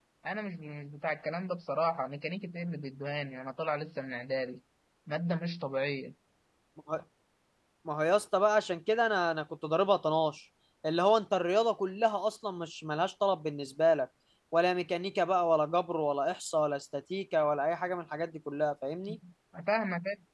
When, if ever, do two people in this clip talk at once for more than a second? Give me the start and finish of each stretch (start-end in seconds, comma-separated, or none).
none